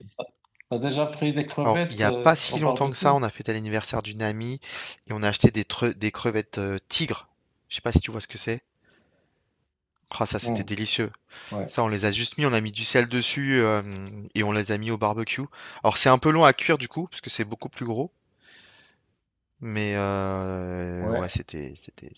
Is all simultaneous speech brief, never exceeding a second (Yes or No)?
No